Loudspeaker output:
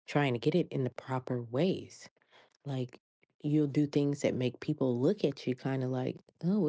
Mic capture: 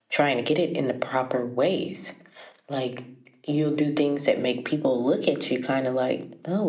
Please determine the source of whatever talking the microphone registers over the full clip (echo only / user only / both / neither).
echo only